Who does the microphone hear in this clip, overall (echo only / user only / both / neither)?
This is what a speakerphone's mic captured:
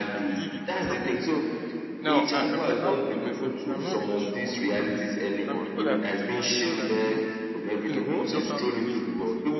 both